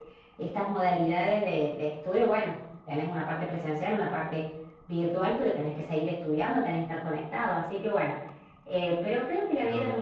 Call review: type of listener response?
listening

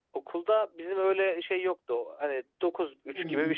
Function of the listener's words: listening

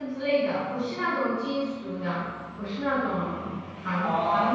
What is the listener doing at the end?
taking over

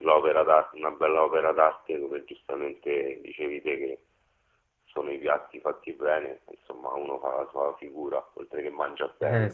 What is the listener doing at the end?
taking over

